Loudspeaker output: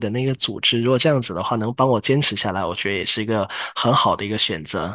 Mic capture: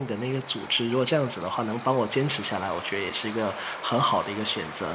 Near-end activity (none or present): none